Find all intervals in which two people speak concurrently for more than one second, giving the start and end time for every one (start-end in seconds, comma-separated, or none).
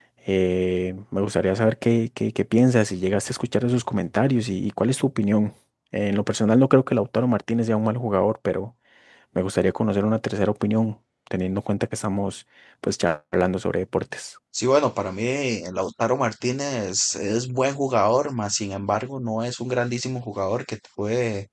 none